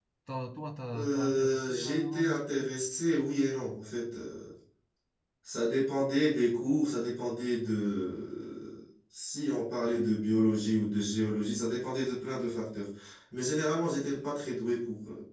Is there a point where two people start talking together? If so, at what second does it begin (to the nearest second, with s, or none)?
1 s